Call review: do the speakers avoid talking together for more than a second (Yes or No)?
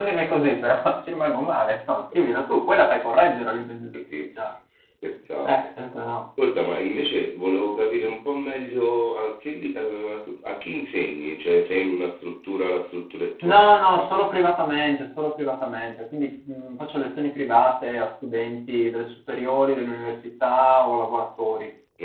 Yes